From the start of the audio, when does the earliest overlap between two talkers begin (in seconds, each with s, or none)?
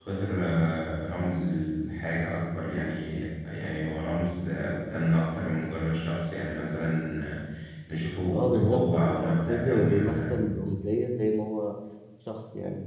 8.3 s